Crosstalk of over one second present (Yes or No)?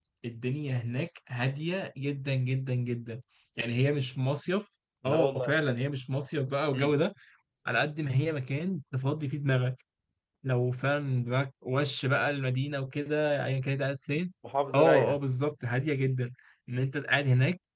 No